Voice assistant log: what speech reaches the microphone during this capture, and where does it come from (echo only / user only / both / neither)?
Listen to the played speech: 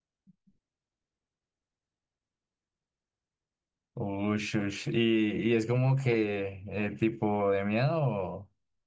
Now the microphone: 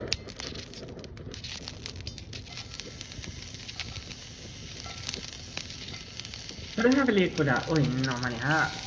user only